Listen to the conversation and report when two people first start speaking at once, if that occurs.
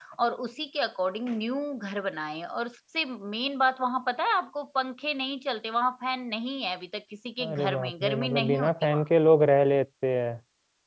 7 s

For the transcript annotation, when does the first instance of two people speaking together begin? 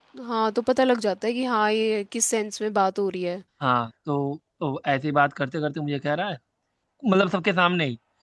none

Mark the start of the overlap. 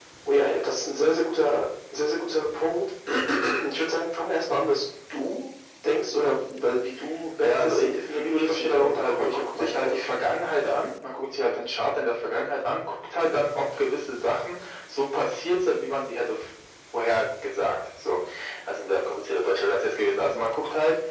7 s

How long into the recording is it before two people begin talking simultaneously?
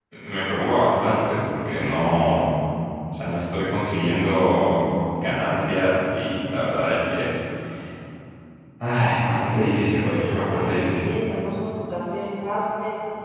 10 s

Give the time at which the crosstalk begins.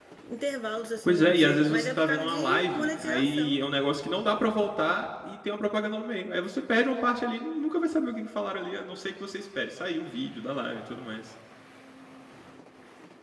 1 s

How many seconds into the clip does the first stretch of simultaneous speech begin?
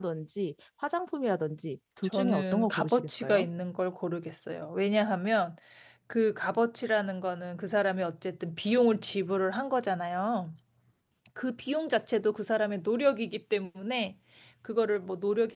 2 s

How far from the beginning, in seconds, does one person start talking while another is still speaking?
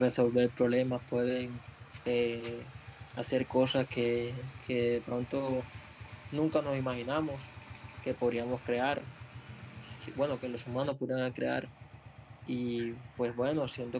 none

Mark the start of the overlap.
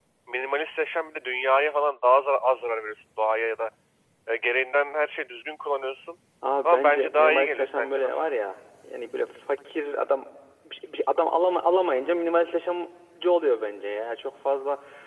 7 s

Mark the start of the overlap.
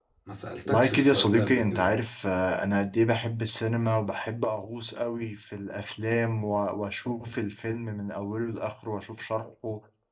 1 s

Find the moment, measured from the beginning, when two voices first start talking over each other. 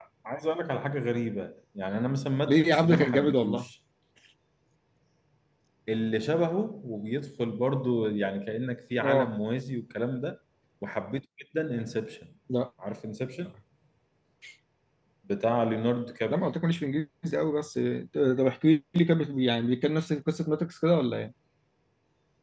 2 s

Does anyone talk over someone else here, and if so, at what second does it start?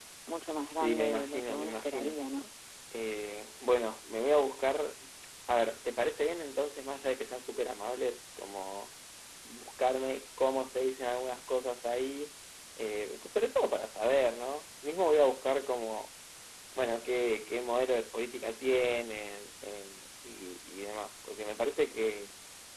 1 s

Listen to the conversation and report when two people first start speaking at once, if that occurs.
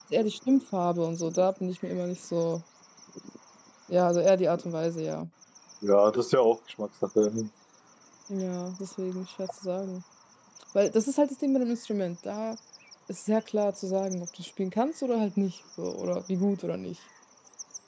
none

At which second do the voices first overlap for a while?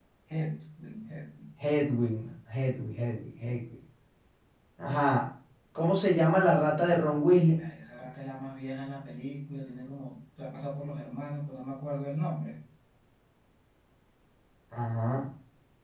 none

